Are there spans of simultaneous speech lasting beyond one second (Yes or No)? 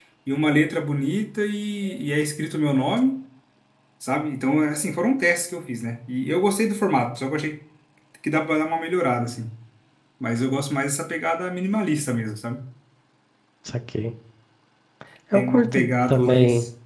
Yes